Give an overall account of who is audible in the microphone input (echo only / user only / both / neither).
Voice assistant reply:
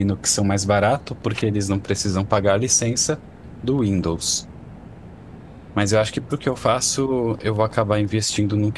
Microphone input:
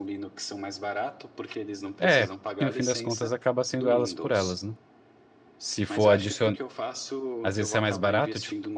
both